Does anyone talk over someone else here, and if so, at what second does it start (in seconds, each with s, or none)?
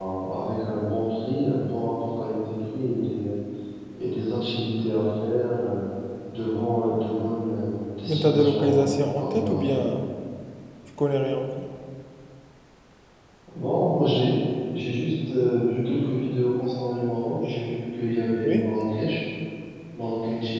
8.1 s